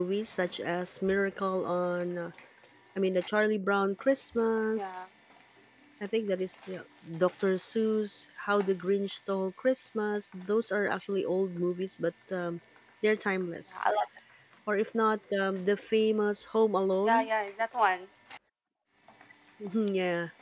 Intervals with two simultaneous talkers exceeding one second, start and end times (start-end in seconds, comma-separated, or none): none